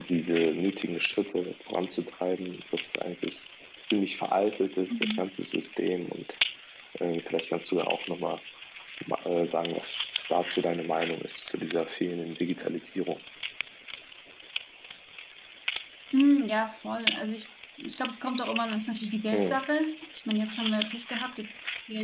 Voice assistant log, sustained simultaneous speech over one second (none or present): none